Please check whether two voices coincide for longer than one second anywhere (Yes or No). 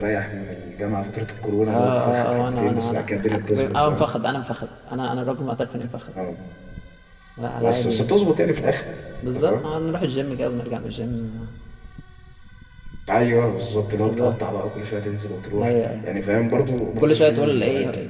Yes